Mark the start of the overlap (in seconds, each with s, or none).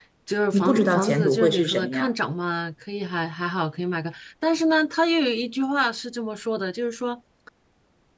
0.5 s